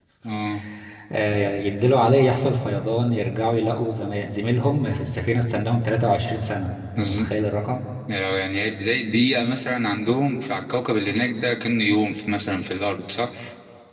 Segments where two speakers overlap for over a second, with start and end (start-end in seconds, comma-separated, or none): none